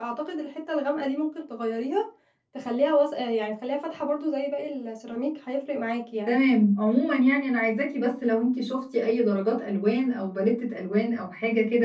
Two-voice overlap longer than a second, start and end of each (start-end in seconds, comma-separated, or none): none